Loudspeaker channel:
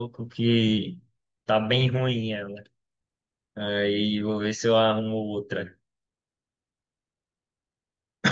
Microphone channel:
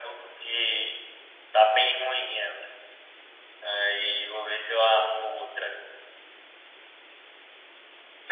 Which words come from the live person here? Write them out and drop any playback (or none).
none